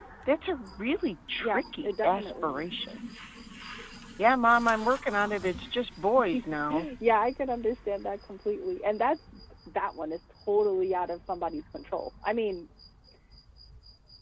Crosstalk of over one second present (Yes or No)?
Yes